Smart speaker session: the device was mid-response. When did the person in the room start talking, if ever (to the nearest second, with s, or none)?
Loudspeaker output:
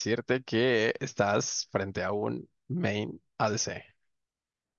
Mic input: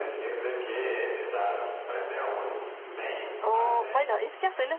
3 s